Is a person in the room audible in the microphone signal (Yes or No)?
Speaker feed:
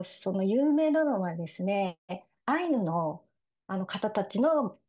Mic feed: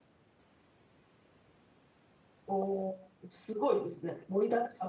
Yes